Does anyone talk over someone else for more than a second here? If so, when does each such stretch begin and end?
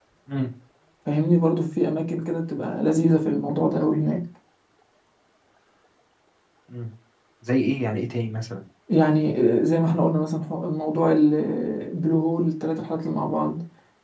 none

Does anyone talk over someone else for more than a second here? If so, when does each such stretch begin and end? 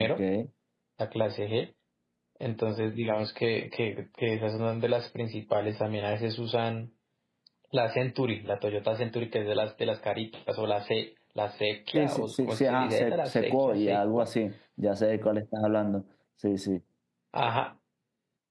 11.9-14.3

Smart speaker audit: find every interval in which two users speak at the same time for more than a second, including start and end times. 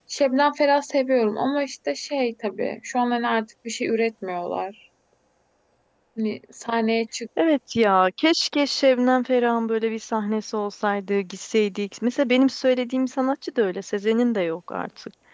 none

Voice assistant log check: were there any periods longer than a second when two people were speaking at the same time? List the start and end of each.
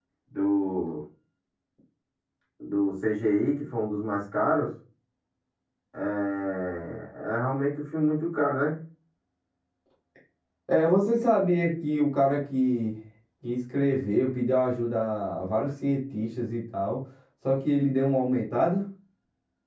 none

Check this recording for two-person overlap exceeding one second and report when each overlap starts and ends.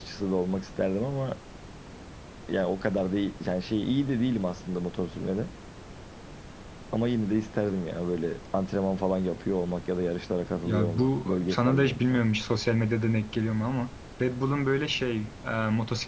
10.6-12.2

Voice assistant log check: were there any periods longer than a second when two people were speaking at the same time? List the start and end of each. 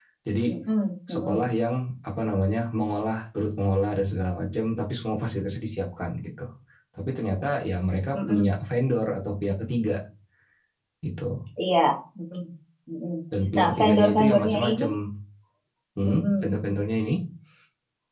13.6-14.8

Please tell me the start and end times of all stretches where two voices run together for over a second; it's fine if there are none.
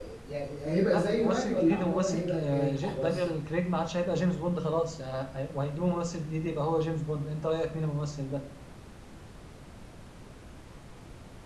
0.9-3.2

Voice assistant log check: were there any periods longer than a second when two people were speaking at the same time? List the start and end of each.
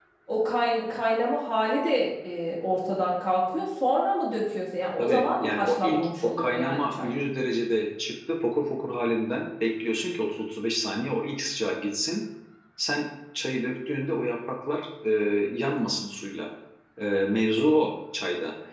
5.0-7.1

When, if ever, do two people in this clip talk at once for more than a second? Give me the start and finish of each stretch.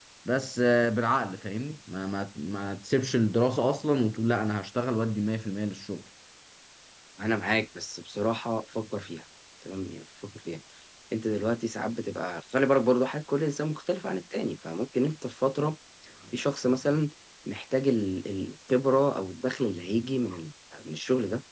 none

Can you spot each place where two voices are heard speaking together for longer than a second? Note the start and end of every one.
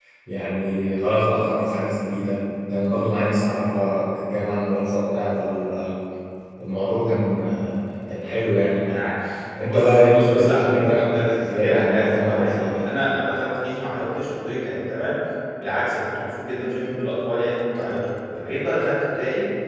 9.7-12.8

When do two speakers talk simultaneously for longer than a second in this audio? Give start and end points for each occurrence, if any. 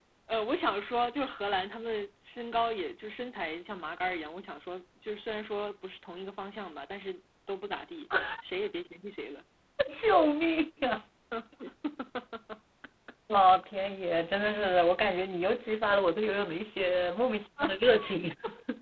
none

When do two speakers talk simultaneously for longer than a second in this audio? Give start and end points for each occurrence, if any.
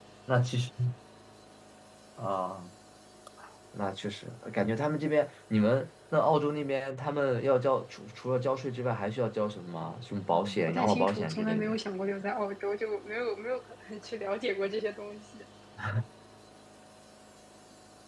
10.3-11.8

